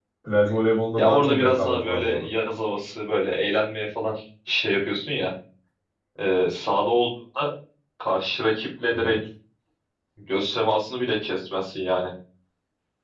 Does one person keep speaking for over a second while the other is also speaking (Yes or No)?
Yes